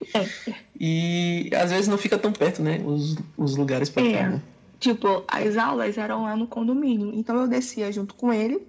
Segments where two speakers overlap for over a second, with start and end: none

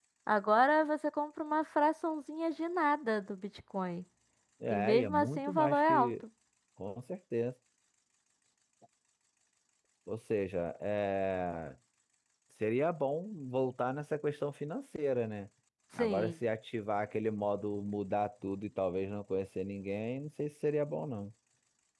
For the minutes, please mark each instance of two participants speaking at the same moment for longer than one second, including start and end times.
4.7-6.1

